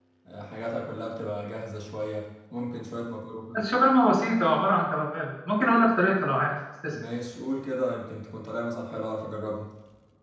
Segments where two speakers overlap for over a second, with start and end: none

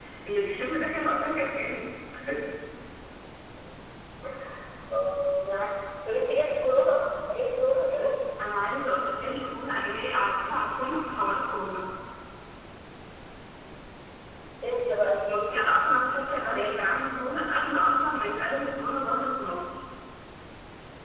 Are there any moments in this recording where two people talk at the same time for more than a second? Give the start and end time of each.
none

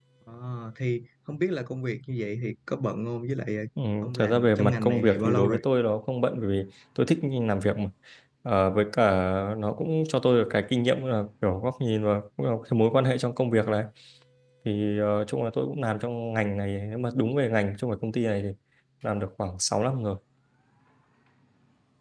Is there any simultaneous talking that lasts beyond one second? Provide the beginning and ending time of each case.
4.0-5.6

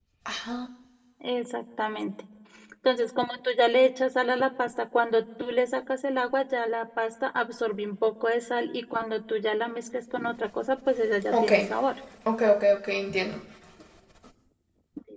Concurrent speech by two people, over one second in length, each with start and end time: none

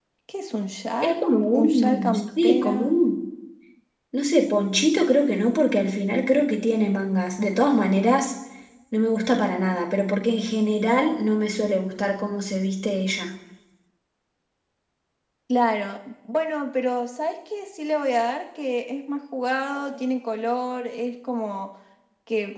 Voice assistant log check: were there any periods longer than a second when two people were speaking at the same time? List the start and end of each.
1.0-3.0

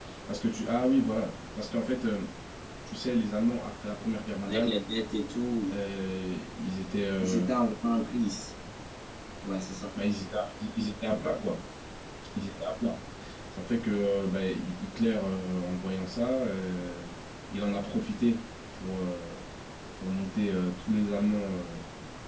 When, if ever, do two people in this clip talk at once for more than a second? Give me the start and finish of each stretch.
none

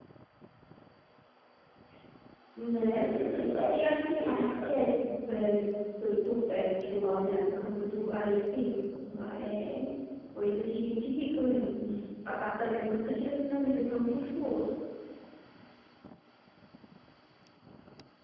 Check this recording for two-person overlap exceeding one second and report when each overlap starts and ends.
2.9-4.9

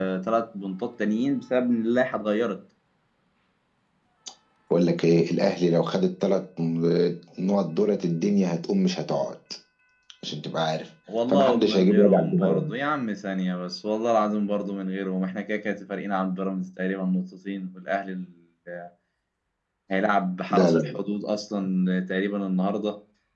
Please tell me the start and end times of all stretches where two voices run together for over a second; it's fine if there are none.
11.3-12.7

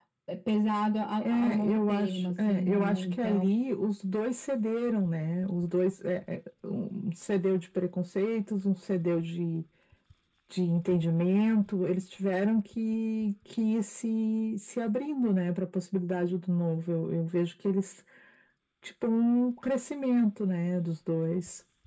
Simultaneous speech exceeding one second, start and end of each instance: 1.2-3.4

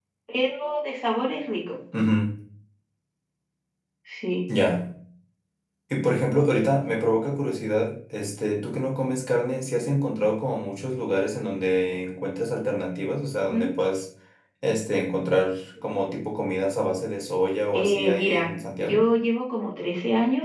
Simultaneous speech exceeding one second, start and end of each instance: 17.7-19.0

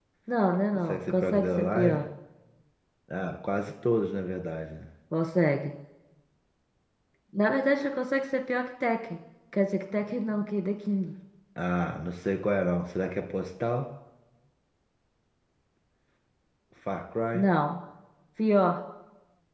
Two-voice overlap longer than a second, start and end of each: 0.7-2.0

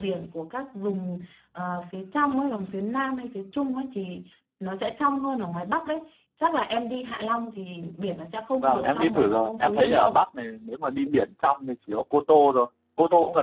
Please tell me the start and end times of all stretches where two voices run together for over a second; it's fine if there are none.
8.6-10.2

